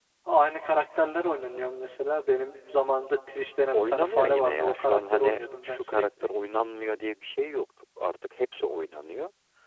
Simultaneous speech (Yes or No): Yes